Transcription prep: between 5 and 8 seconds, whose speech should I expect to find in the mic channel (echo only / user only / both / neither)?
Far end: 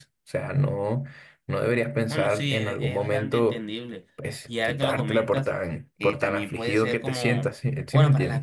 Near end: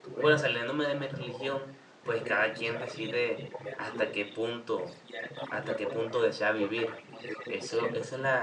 both